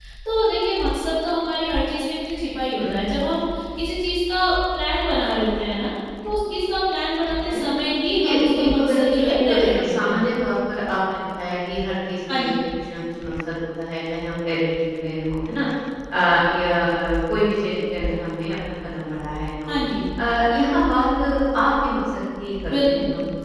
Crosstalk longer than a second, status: present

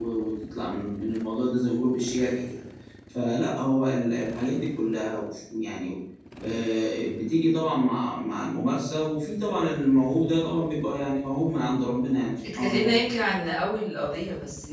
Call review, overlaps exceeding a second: none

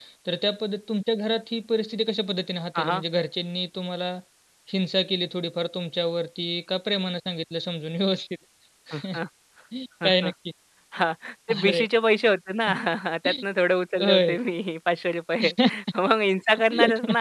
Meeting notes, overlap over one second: none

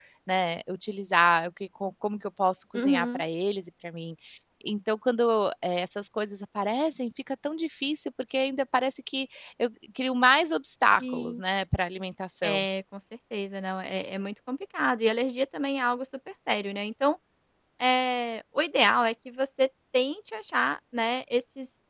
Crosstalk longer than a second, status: none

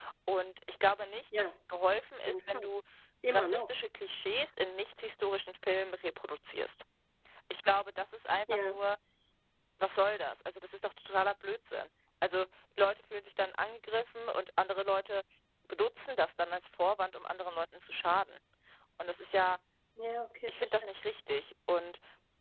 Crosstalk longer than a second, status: none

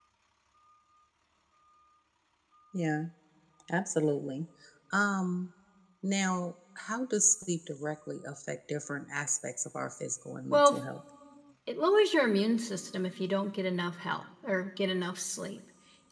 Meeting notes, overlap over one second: none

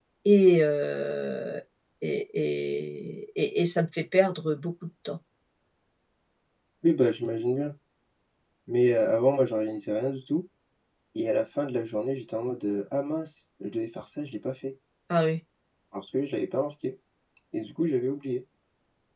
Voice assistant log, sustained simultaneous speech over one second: none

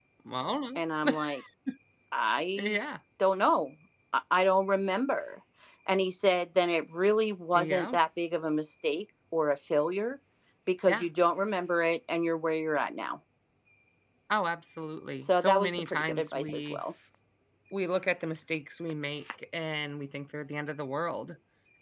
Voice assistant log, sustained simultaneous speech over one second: present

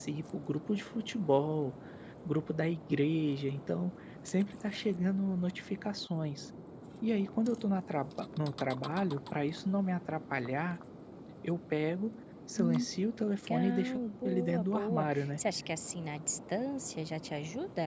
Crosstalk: present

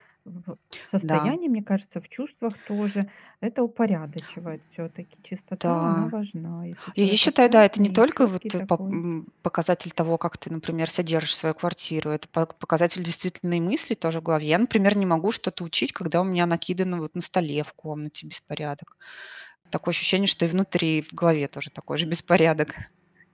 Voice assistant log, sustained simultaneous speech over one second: present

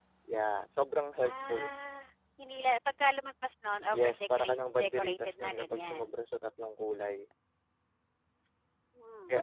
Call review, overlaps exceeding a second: present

